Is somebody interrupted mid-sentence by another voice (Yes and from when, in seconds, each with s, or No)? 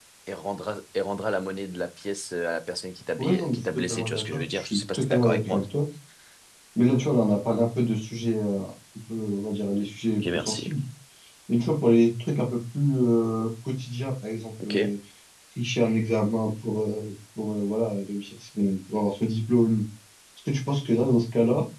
Yes, from 3.2 s